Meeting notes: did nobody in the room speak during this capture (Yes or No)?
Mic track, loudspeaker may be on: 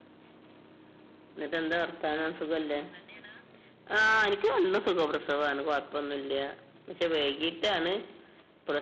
Yes